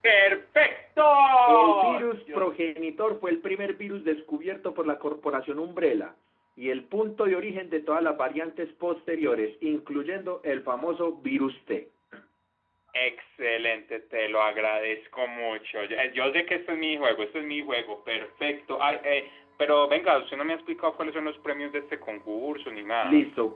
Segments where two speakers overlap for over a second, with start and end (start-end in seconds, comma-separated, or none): none